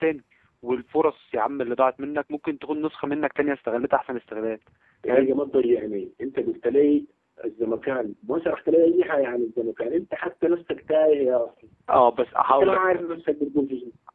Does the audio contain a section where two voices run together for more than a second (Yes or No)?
No